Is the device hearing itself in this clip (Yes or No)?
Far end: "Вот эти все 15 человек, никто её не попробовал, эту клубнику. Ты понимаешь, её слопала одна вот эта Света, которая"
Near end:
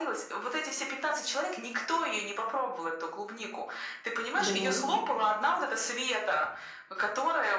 Yes